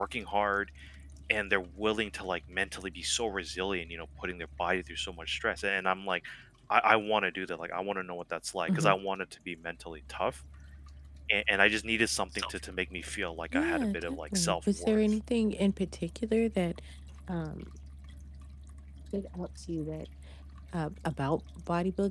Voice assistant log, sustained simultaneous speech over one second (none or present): present